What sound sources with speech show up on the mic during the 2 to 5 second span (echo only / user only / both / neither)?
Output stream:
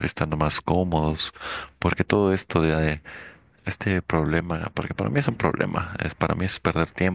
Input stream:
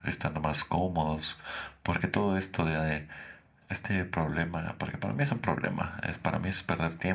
echo only